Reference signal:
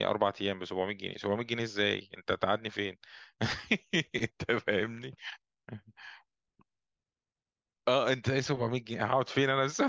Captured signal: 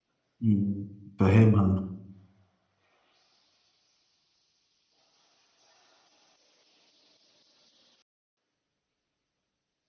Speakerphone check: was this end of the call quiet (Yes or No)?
No